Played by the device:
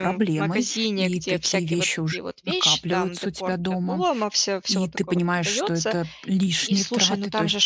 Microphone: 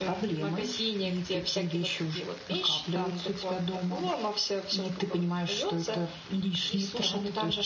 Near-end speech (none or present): none